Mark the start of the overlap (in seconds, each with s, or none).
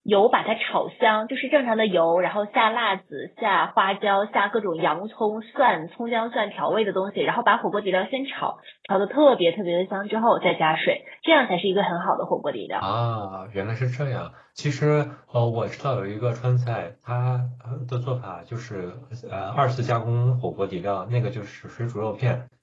none